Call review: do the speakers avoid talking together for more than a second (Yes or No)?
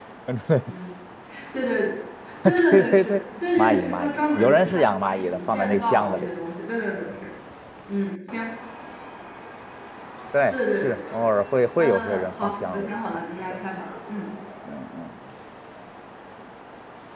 No